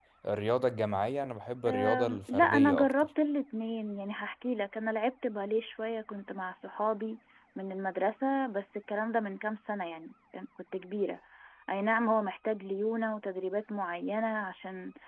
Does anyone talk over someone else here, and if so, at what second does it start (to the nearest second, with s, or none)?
2 s